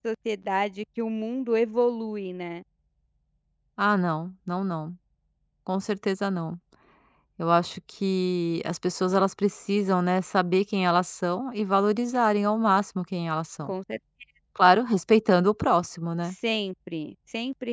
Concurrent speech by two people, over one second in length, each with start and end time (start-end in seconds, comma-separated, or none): none